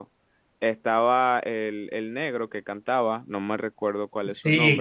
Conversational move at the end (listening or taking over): taking over